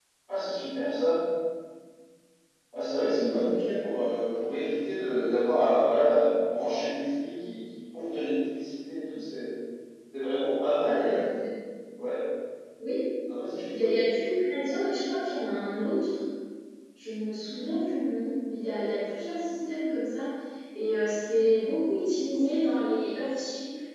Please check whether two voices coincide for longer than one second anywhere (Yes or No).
No